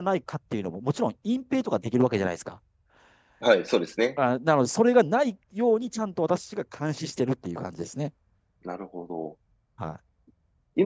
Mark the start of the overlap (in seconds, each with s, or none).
none